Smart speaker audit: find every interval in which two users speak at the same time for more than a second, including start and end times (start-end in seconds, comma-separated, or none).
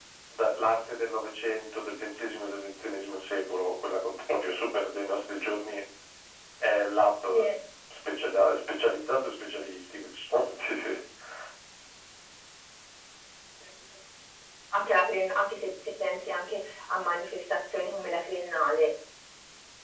none